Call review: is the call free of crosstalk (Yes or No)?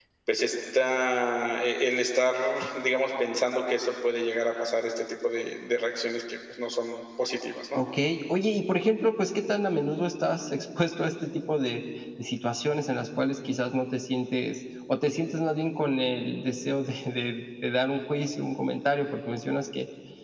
Yes